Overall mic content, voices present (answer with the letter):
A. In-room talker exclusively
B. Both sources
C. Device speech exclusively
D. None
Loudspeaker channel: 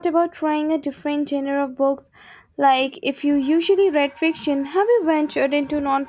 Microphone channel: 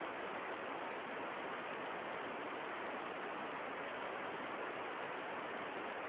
D